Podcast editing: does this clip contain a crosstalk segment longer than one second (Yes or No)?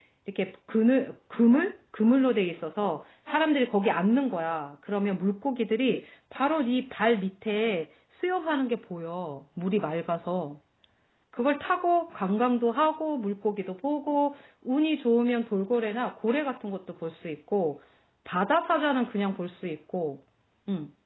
No